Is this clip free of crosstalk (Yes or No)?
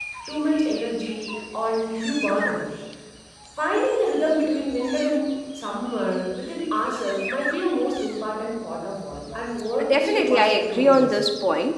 No